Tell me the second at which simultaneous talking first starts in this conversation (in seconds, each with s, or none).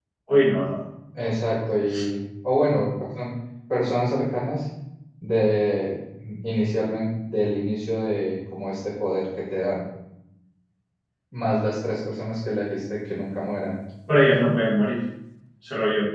none